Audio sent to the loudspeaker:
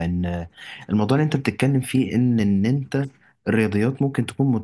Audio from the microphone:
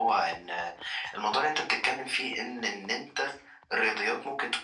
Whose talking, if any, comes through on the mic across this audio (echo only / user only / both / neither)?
echo only